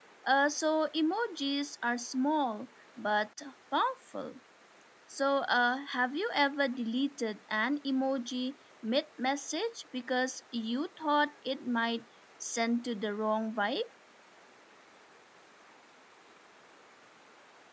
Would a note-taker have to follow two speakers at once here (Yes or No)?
No